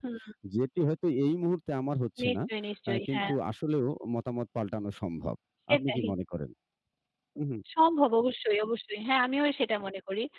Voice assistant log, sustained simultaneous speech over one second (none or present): none